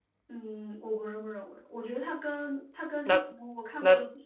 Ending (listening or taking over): listening